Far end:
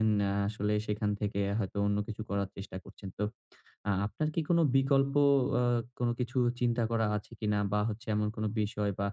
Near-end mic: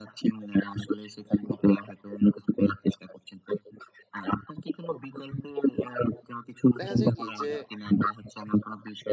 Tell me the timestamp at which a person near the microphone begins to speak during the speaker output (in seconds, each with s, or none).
6.8 s